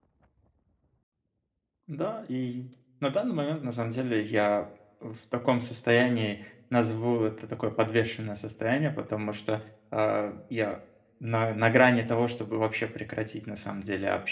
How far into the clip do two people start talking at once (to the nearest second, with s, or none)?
none